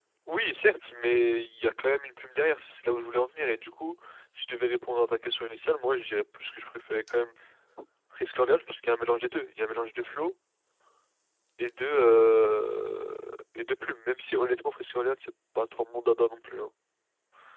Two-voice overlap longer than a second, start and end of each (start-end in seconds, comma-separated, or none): none